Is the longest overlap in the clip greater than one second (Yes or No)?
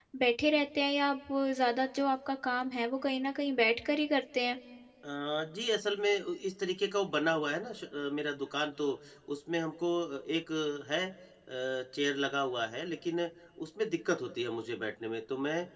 No